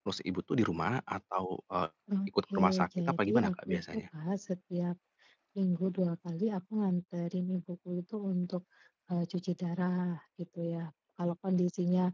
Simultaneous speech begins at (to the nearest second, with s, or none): 3 s